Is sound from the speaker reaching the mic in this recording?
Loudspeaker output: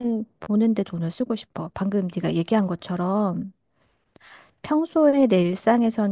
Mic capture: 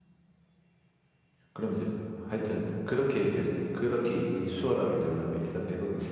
No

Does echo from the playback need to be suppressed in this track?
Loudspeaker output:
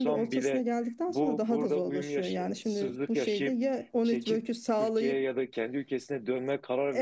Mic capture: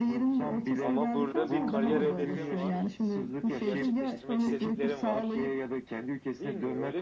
Yes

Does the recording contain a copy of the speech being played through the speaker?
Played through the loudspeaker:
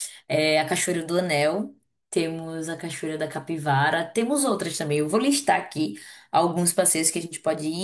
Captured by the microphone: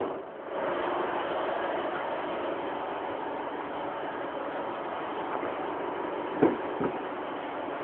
No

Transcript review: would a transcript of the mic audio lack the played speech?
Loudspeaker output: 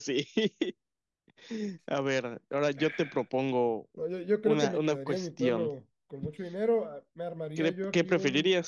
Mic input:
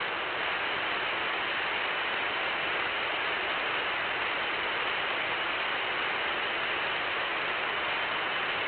Yes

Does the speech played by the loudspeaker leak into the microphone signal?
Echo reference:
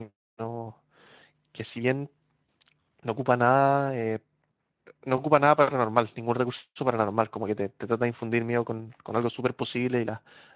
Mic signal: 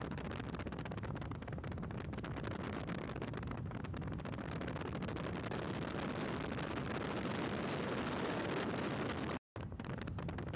No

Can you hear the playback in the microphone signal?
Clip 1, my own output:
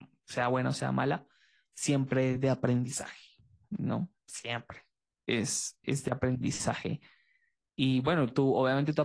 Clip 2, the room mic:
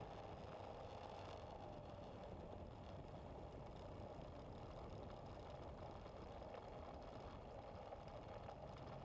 No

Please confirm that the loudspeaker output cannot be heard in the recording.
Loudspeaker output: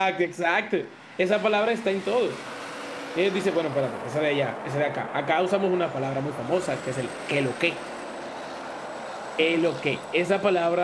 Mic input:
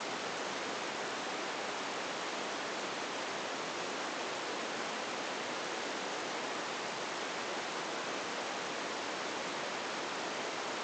Yes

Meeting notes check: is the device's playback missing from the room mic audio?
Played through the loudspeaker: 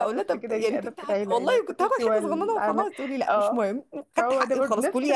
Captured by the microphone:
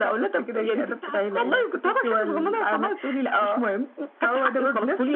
No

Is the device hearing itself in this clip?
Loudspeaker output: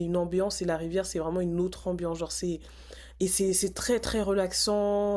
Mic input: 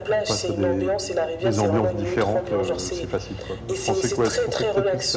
Yes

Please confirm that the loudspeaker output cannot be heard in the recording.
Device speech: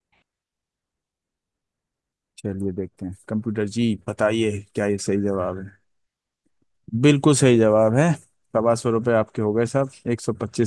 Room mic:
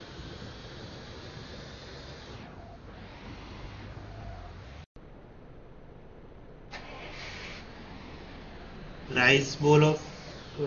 Yes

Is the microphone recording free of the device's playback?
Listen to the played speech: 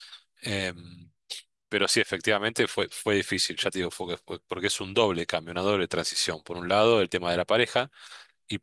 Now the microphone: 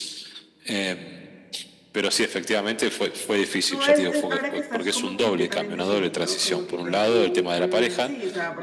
No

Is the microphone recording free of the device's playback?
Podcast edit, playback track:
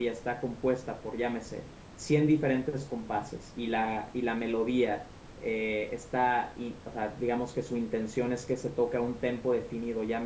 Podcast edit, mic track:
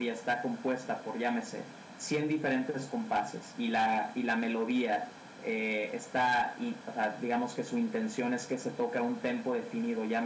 No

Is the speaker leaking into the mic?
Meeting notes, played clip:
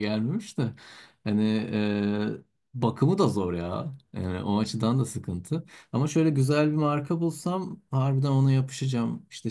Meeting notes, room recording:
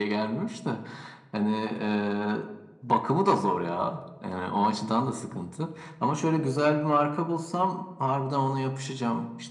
Yes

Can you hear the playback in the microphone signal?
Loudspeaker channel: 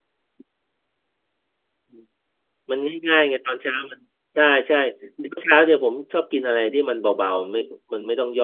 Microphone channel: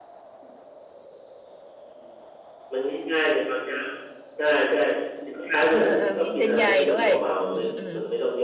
Yes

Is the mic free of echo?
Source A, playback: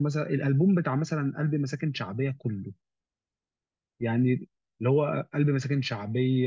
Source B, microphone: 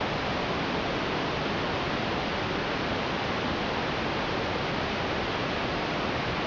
Yes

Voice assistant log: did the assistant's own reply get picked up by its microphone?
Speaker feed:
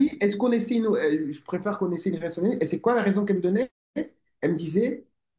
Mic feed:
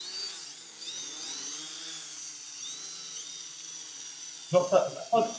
No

